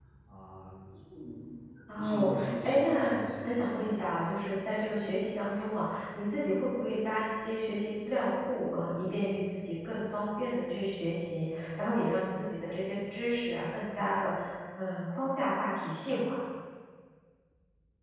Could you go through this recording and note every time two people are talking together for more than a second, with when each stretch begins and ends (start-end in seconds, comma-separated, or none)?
1.9-3.8